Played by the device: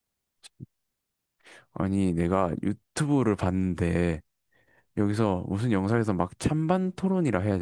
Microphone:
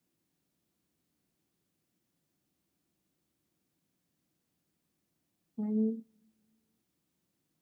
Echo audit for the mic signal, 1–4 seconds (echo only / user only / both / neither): neither